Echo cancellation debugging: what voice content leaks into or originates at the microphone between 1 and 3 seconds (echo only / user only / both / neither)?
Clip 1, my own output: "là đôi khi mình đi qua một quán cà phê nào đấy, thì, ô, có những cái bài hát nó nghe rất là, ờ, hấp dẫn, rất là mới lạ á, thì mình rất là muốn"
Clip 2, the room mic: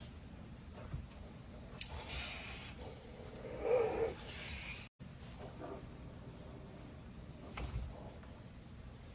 neither